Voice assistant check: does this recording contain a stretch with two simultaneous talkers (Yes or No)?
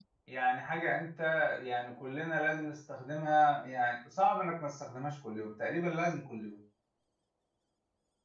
No